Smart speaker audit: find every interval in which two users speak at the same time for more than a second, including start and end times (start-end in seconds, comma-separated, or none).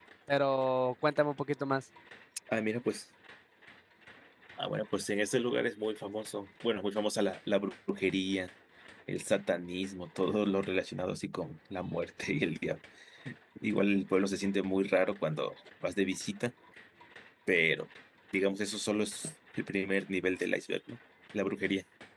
none